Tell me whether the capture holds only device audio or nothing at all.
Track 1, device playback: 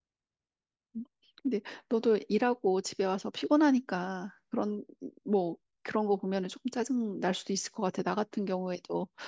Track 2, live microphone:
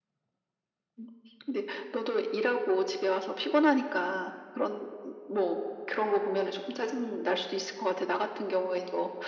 Yes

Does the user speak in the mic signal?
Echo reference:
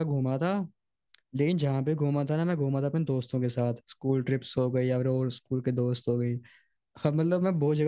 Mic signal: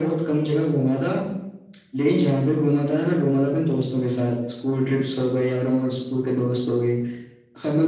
No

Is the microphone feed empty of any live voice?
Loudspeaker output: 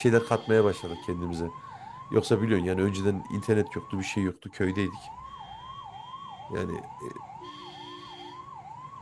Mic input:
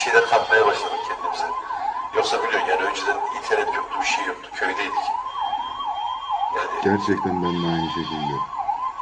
No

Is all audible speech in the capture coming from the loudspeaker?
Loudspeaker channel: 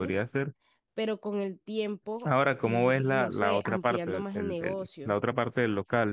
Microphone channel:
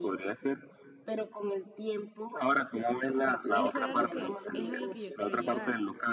No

